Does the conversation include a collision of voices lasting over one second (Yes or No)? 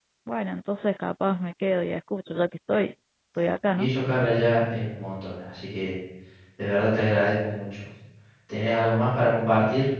No